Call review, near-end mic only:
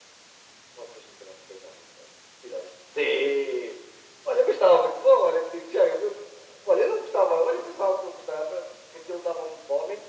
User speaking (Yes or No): No